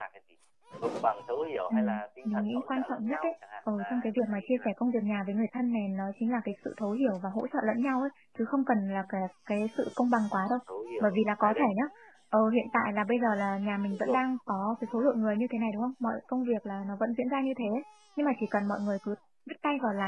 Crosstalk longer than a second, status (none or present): present